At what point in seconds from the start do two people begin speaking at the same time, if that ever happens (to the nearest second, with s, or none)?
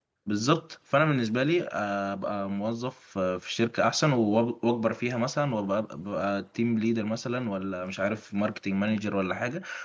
none